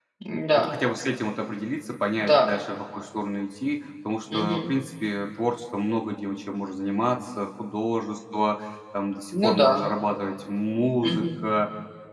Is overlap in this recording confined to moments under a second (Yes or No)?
Yes